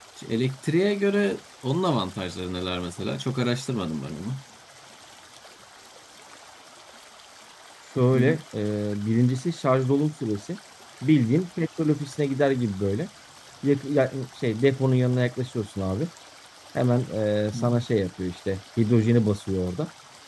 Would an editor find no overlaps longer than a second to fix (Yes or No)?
Yes